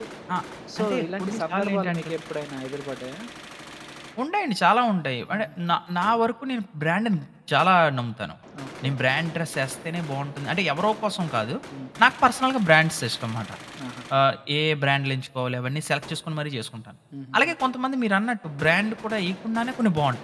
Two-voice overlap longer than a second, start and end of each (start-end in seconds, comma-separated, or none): 0.8-2.1